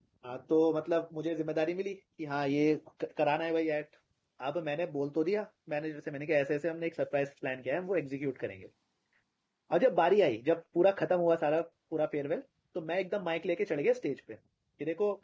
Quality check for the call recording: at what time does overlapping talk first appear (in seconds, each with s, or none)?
none